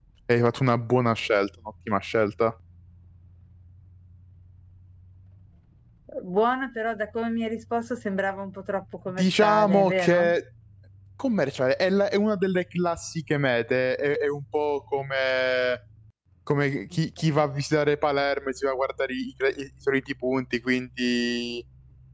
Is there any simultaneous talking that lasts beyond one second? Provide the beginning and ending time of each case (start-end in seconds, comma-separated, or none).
9.1-10.3